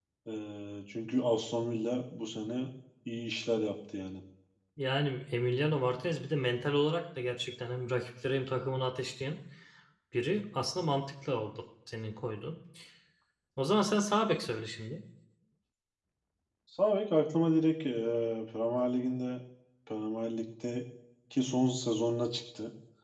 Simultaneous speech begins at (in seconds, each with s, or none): none